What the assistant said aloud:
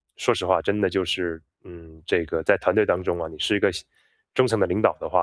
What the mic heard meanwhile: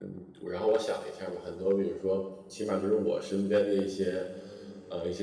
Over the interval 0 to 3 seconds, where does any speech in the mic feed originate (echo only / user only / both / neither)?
user only